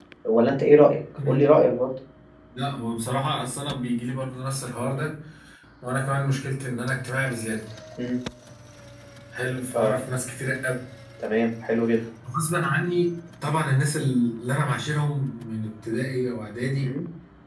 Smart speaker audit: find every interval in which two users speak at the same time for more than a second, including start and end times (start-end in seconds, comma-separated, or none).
none